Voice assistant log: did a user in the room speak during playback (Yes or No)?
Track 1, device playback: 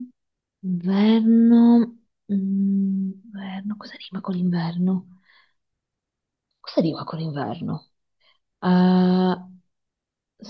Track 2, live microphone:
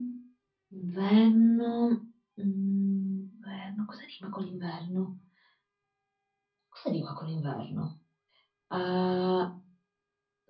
No